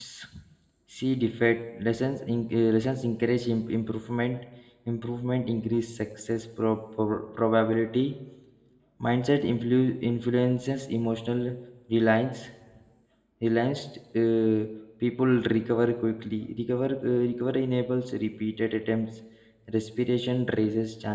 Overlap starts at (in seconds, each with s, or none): none